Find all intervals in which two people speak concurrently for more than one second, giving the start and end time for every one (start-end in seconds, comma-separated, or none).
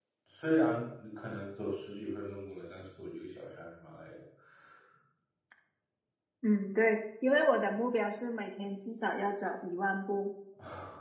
none